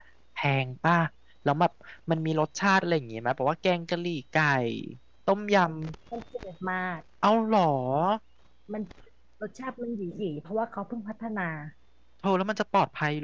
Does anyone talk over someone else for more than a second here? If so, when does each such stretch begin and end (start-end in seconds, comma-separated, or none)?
none